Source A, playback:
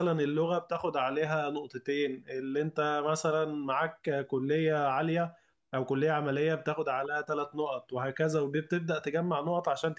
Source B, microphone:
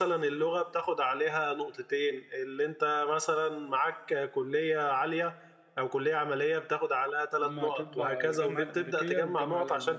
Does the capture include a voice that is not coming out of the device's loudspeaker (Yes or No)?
Yes